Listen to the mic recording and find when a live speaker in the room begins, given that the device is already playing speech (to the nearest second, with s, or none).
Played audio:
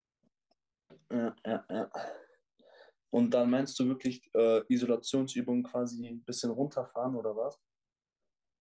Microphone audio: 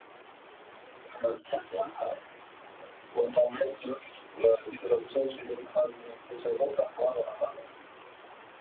none